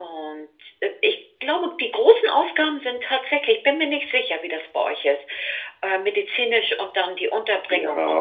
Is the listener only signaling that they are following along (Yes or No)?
No